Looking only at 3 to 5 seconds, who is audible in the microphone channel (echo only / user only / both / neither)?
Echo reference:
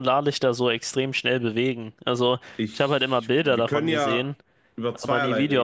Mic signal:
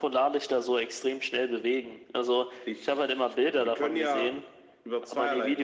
echo only